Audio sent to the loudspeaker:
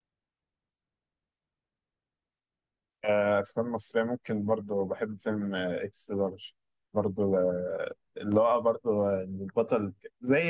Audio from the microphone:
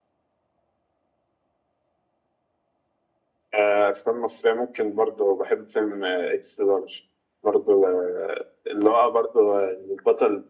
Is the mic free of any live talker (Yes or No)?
Yes